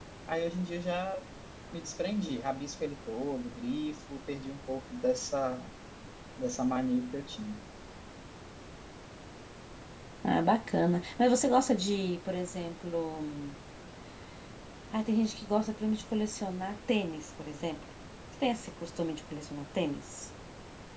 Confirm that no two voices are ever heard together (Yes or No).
Yes